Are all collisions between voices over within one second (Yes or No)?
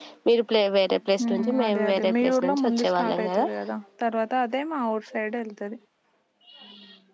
No